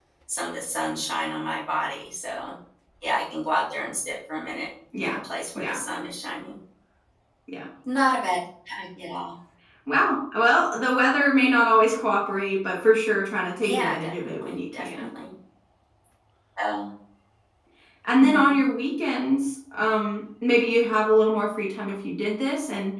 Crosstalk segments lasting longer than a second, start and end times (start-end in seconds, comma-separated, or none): 13.6-15.1